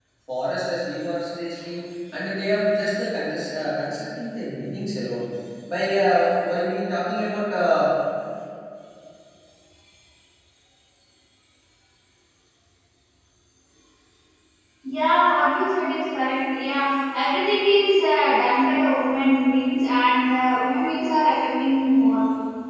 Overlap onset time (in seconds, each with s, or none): none